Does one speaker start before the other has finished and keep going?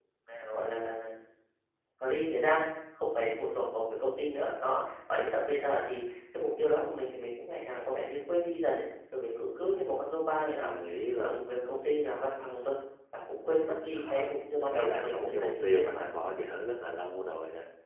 Yes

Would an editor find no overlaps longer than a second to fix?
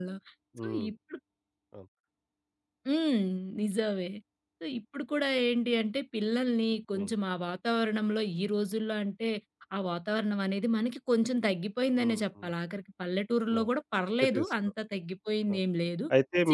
Yes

